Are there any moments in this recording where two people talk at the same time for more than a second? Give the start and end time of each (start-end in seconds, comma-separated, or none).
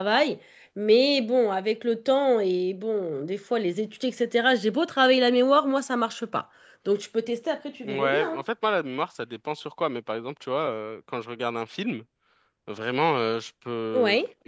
none